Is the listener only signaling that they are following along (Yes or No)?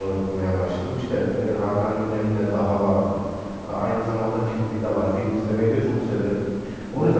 Yes